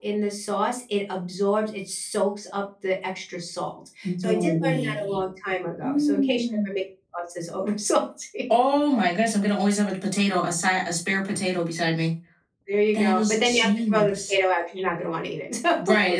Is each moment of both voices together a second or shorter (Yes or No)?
No